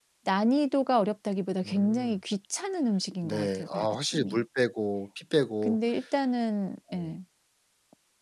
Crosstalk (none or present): present